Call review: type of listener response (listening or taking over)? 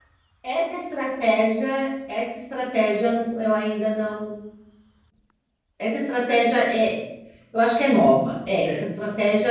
listening